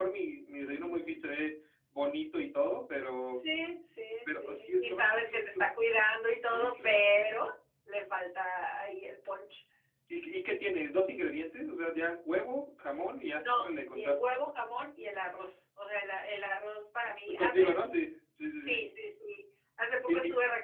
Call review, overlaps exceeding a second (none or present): present